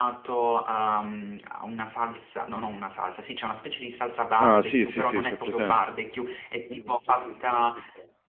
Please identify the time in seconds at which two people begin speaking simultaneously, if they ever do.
4.4 s

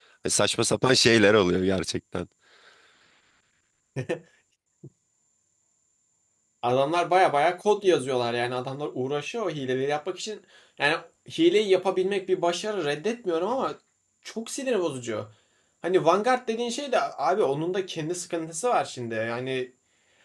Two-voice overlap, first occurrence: none

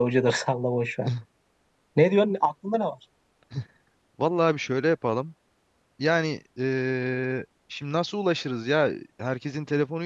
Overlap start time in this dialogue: none

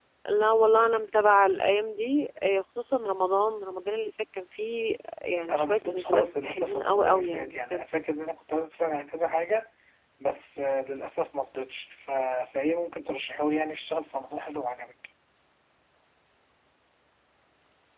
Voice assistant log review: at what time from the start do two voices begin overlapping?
5.5 s

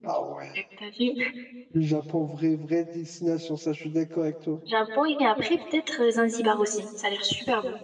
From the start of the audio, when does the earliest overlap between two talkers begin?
none

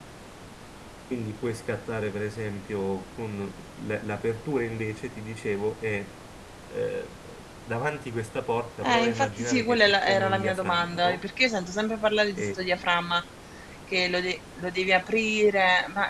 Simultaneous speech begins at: 8.8 s

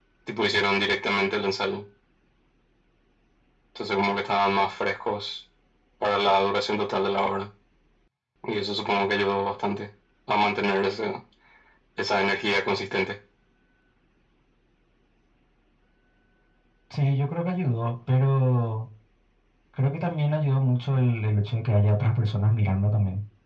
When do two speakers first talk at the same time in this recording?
none

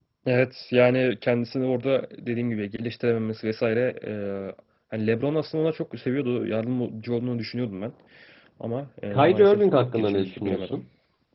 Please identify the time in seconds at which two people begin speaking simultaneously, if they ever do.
9.1 s

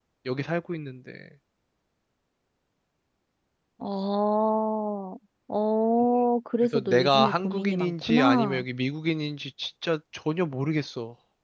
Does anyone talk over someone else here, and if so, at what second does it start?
6.7 s

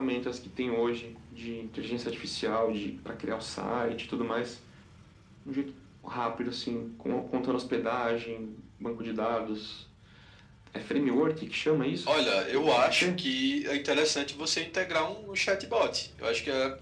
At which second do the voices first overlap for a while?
12.1 s

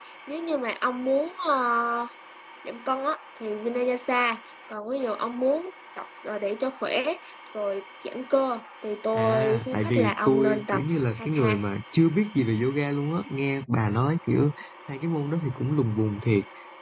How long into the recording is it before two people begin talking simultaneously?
9.2 s

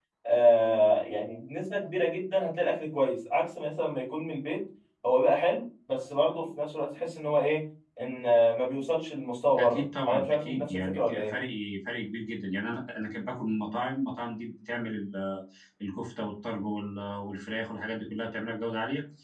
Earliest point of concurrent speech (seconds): 9.6 s

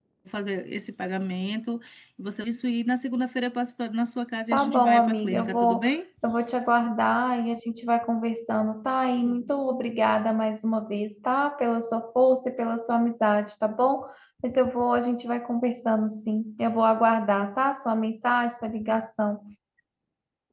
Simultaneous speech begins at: 4.5 s

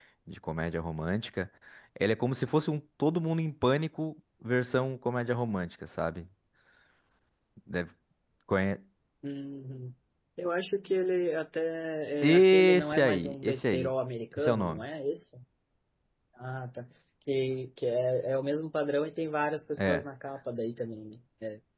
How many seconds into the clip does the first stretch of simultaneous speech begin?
12.2 s

